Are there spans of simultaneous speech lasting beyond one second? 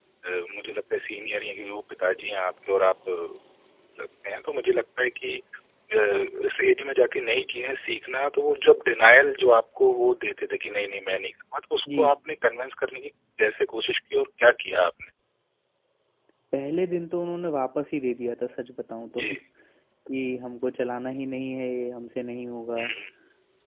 No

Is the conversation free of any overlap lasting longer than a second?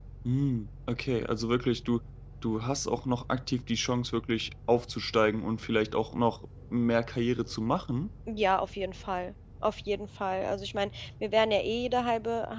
Yes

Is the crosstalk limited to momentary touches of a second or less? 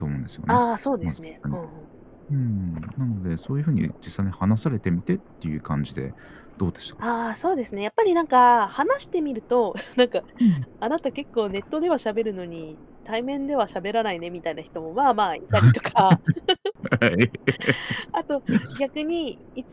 Yes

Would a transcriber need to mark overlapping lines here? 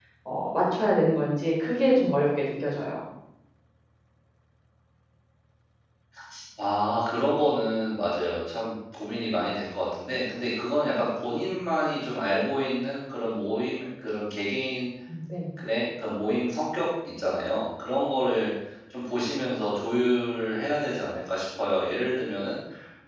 No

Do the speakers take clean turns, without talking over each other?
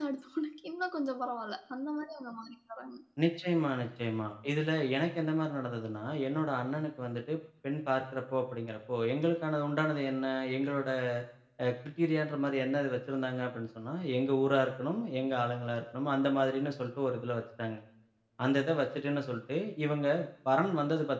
Yes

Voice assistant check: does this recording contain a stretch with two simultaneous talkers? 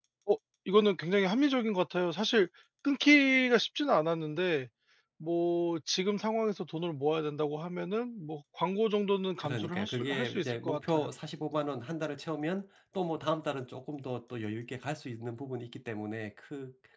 Yes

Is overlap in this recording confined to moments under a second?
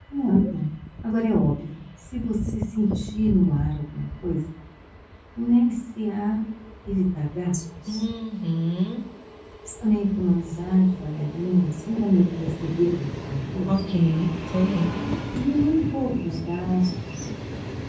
Yes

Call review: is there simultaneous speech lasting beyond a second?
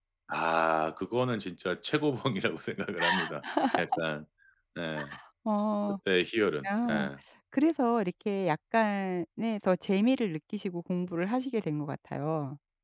No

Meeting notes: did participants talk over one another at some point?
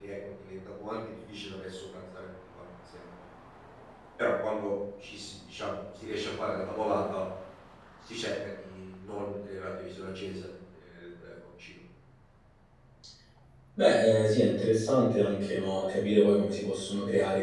No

